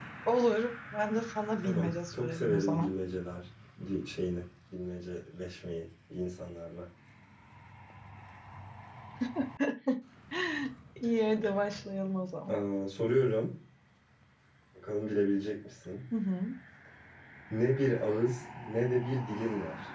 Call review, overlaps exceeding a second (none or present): present